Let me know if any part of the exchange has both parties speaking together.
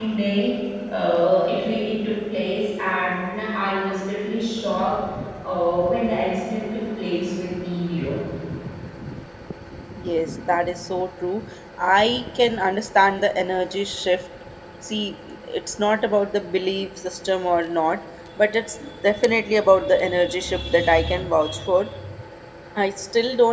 No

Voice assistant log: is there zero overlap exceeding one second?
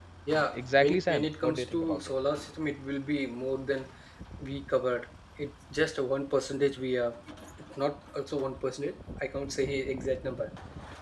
No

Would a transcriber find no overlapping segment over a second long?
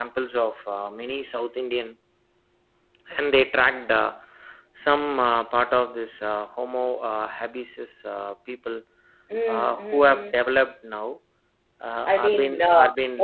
No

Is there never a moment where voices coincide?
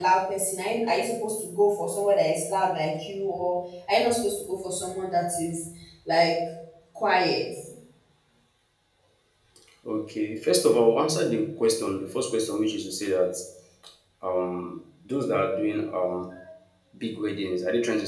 Yes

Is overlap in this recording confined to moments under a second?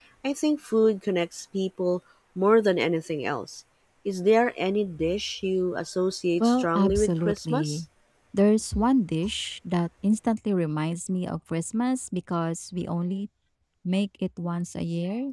No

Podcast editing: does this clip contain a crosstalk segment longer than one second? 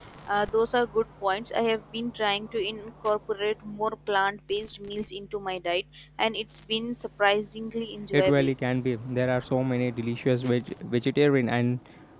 No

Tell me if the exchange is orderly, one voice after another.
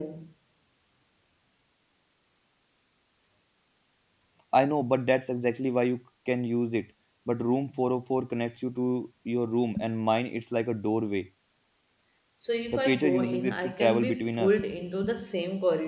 No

